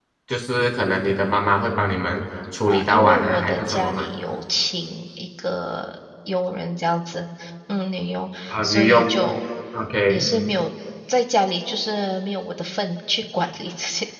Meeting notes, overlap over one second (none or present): present